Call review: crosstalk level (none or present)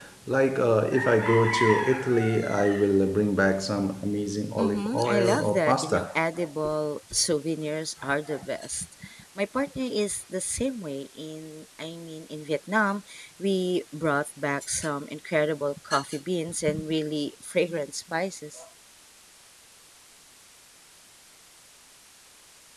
present